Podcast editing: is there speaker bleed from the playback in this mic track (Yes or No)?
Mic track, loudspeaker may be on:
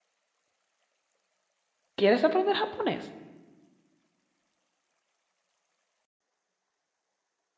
No